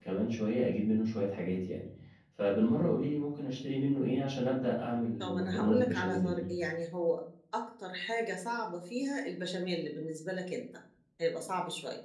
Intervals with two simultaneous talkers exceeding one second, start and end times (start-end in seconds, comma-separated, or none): 5.2-6.4